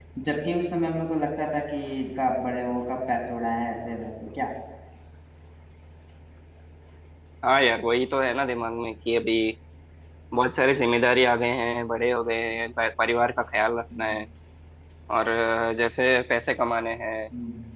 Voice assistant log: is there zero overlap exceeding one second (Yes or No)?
Yes